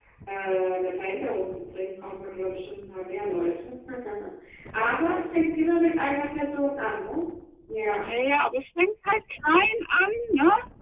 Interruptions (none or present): none